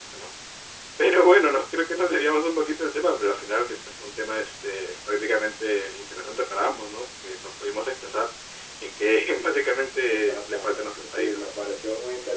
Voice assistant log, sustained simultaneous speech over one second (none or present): present